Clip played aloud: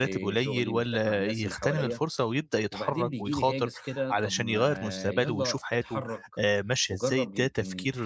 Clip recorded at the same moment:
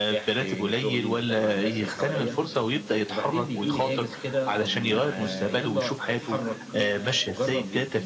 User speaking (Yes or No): Yes